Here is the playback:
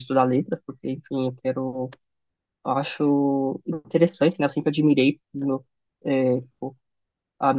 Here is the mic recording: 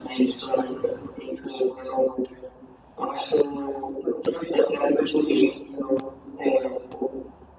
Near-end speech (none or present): none